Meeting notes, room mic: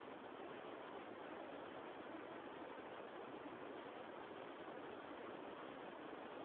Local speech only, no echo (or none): none